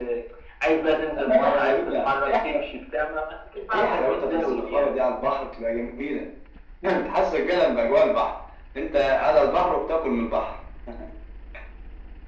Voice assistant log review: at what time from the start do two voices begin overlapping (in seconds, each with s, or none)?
1.2 s